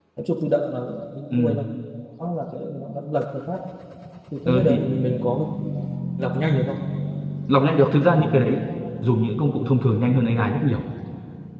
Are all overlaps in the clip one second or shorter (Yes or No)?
Yes